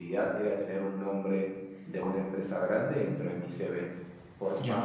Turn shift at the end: No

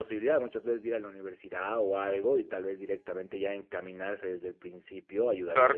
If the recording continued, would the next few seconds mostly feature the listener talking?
Yes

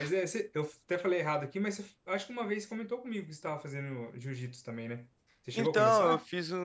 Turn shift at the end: Yes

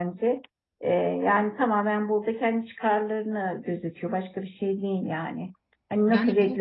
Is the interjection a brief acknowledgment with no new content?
Yes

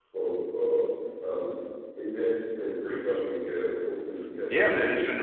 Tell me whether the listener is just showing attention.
No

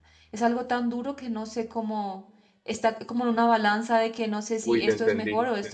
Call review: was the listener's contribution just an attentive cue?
No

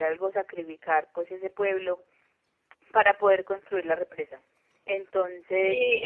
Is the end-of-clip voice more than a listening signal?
Yes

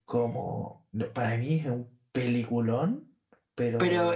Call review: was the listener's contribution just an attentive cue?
No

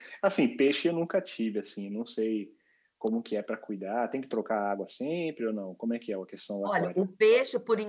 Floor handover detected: Yes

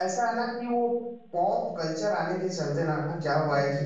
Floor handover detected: No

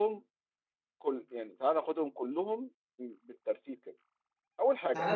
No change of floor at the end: No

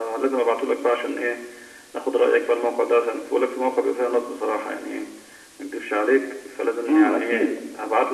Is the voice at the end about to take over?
Yes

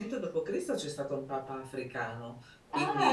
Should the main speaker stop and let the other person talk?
No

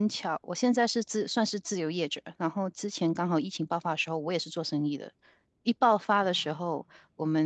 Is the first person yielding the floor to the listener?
No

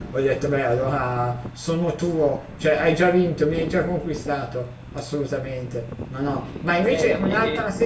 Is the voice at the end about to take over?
No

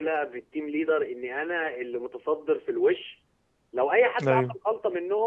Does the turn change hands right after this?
No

